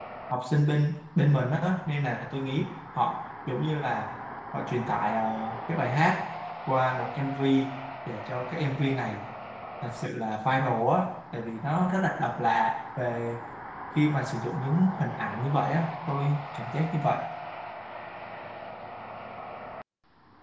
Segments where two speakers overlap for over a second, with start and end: none

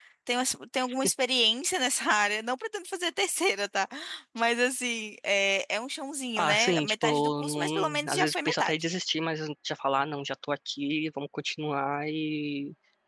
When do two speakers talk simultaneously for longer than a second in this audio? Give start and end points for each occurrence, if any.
6.4-8.7

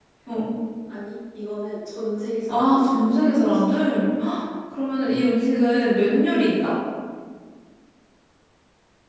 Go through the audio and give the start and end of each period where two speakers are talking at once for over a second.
2.5-3.8

